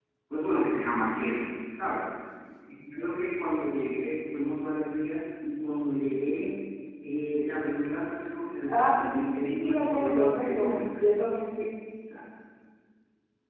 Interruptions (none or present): present